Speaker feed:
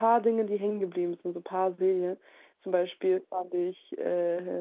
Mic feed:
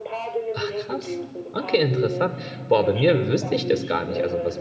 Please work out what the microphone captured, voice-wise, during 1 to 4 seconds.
both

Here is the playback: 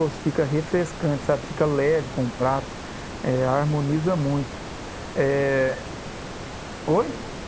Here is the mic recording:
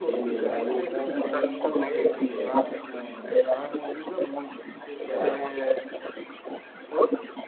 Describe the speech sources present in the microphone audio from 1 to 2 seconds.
both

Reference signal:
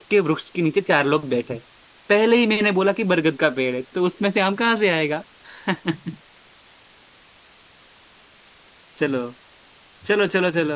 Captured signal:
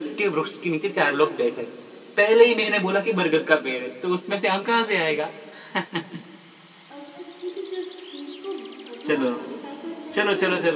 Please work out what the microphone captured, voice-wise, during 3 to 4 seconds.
echo only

